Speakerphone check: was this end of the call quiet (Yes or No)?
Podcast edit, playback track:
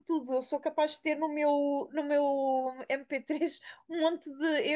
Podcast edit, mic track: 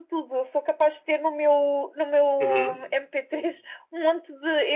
No